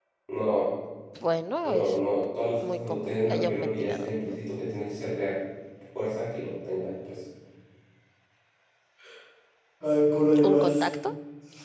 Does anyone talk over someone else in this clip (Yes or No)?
Yes